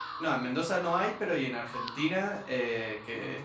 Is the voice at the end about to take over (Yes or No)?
No